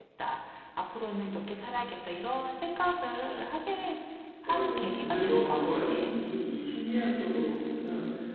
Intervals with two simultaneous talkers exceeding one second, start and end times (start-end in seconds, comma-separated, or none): 4.5-5.9